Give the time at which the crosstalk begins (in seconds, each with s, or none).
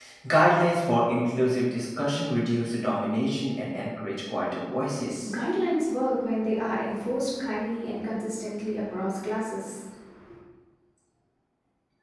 none